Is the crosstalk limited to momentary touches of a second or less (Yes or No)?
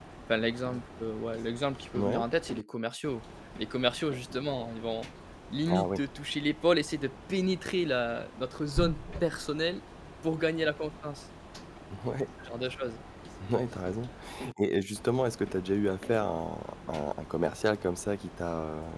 Yes